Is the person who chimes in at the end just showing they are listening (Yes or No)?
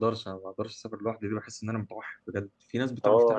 No